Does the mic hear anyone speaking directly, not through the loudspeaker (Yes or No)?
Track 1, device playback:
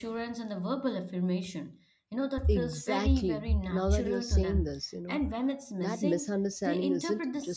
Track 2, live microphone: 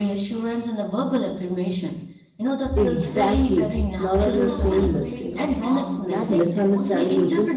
Yes